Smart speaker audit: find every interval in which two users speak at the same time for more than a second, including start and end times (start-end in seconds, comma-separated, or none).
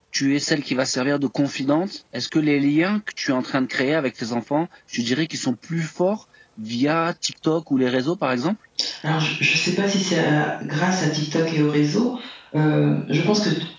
none